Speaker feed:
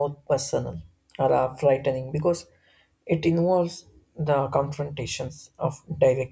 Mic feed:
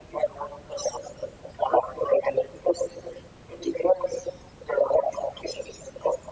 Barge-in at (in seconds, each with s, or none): none